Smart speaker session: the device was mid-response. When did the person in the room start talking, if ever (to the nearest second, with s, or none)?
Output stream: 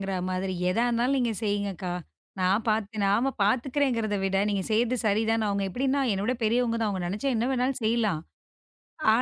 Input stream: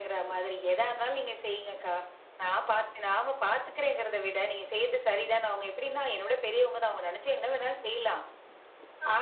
none